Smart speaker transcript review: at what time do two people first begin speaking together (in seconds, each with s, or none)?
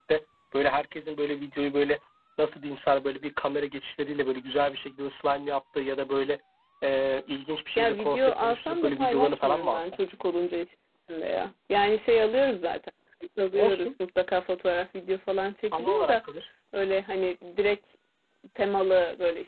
7.8 s